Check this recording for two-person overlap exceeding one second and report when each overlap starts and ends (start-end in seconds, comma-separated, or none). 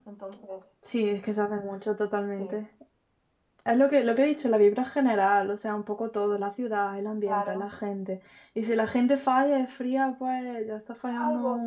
none